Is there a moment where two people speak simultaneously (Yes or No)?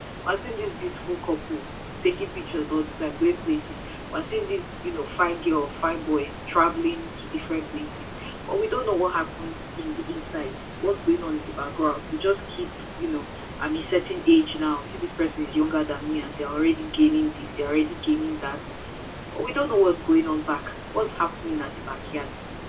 No